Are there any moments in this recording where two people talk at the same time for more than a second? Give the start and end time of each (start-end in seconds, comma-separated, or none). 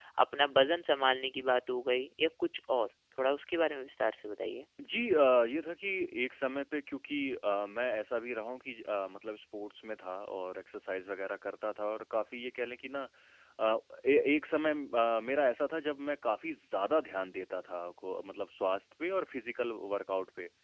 none